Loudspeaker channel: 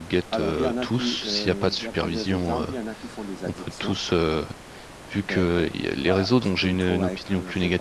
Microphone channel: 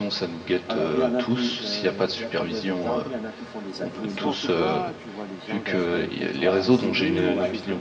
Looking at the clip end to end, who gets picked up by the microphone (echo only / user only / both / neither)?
both